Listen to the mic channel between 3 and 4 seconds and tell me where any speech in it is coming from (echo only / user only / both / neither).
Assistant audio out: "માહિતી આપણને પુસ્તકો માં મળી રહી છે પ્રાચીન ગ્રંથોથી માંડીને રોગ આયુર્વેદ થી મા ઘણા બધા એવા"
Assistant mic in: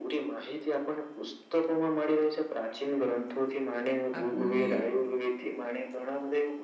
echo only